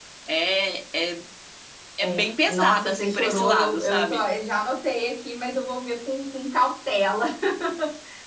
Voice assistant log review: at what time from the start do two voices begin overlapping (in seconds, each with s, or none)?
2.0 s